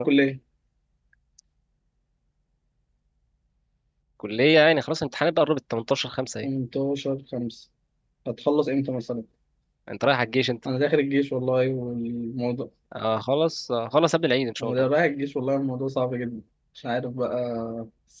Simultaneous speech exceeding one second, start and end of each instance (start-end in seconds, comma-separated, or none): none